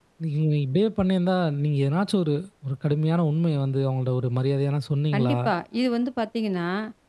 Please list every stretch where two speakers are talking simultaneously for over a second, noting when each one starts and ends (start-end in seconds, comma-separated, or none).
none